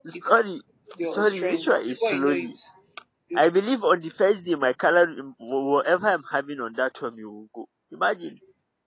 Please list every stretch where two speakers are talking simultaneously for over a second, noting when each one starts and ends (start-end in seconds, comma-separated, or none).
1.0-2.5